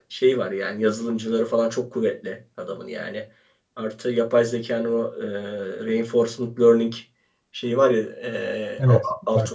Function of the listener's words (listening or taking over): listening